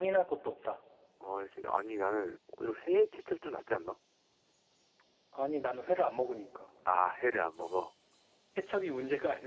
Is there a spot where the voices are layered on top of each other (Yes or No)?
No